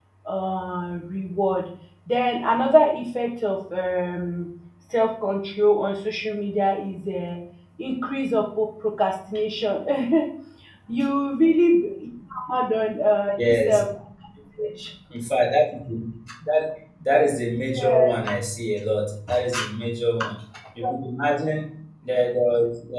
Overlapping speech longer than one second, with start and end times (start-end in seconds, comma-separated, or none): none